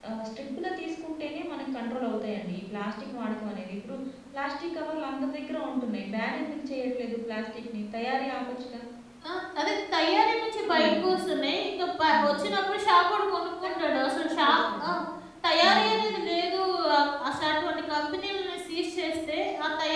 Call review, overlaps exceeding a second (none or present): present